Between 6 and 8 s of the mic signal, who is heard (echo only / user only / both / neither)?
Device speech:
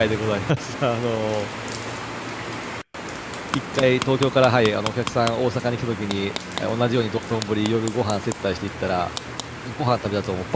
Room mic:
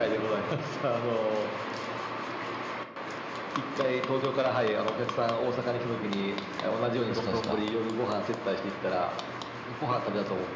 both